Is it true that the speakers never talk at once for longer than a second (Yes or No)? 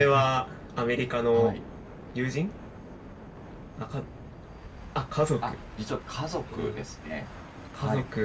Yes